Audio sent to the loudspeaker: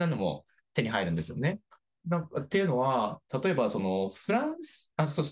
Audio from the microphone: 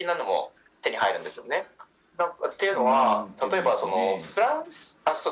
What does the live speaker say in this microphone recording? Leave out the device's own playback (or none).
なんていうんですかね。